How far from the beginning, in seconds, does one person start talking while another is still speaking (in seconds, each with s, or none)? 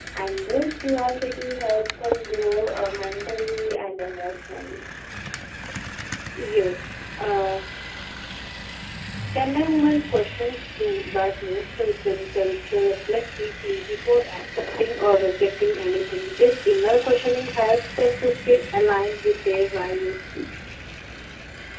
none